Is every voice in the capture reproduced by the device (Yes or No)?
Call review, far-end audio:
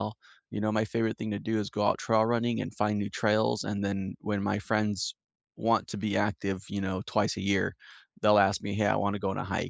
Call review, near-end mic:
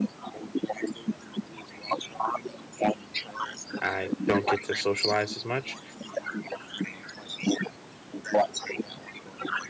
No